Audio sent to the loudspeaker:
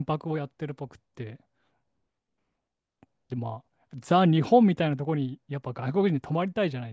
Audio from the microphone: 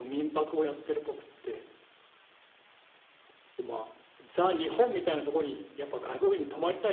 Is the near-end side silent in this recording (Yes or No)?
Yes